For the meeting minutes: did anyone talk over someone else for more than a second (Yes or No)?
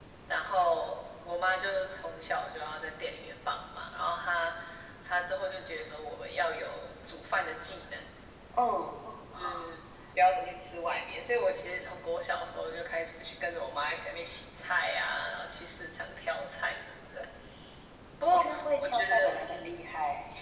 Yes